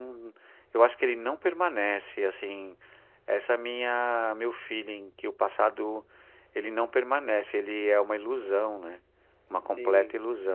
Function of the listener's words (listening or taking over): taking over